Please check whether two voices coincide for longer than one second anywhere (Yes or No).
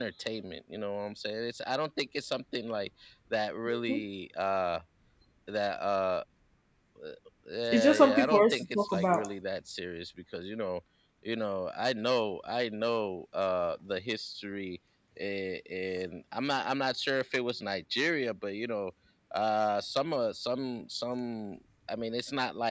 Yes